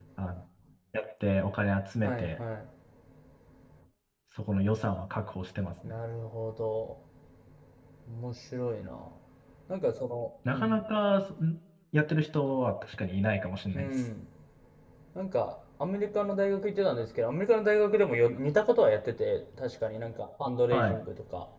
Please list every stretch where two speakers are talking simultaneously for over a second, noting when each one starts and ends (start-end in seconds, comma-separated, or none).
none